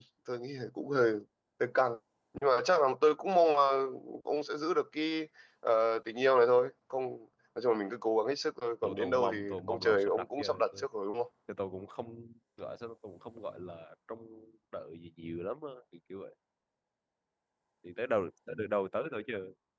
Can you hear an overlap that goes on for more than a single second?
Yes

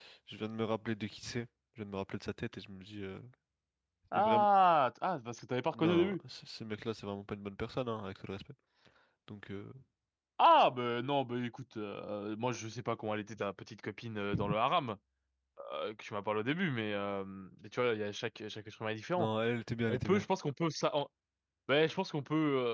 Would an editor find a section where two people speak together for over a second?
No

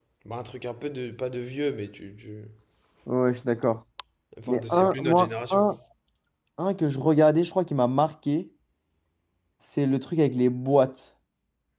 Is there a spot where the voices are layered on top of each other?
Yes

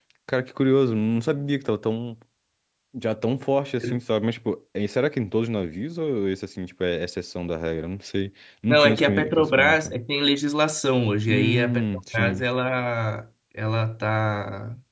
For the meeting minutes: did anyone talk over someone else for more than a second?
Yes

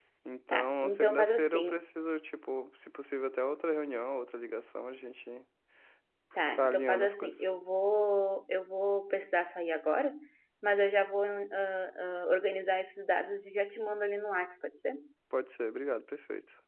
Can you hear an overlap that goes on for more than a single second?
Yes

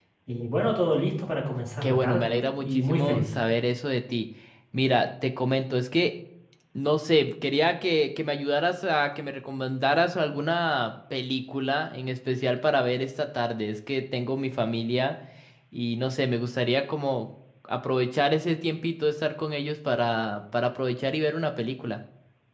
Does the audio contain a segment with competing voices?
Yes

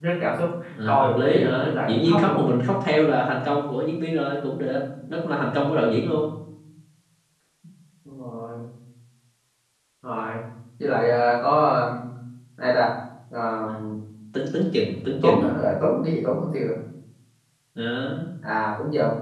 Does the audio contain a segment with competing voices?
Yes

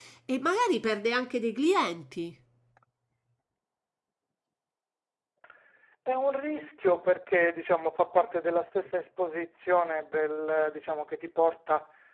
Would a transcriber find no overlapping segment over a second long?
Yes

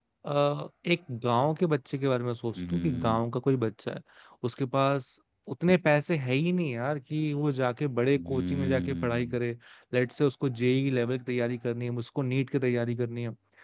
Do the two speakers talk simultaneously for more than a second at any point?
Yes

